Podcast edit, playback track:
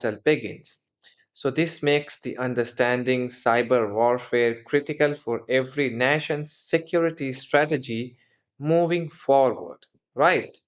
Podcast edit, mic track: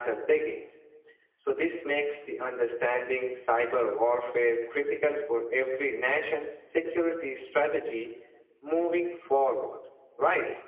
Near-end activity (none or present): none